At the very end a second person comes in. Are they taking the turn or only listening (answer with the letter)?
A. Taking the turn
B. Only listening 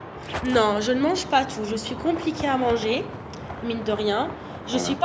B